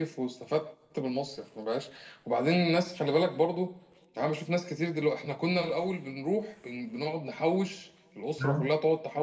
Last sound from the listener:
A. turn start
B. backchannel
B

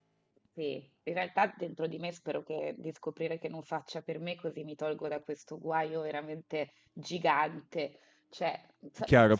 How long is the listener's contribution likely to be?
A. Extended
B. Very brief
A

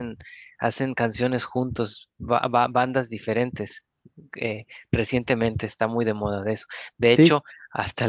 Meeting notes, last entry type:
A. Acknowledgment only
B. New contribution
A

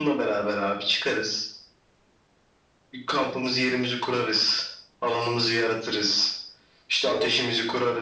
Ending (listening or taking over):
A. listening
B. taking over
A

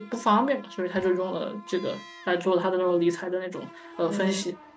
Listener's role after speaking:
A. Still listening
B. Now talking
B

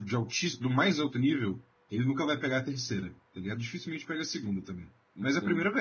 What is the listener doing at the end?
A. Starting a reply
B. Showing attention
A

